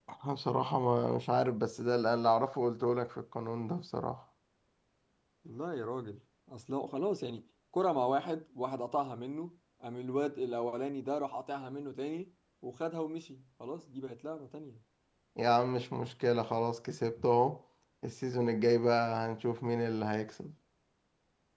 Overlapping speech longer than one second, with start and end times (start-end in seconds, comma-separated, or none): none